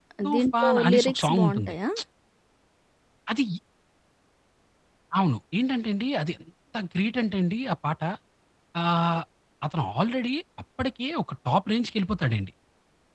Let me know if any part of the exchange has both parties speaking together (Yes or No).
Yes